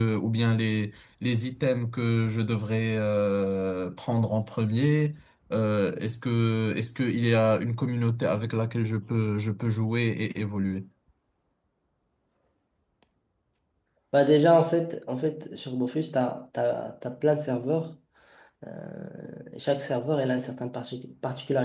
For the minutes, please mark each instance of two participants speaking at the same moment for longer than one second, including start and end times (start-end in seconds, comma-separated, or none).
none